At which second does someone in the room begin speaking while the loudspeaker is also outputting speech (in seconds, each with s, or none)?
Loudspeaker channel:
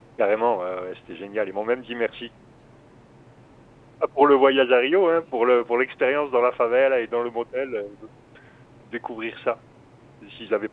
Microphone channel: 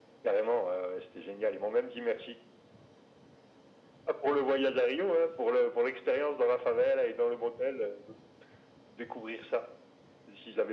none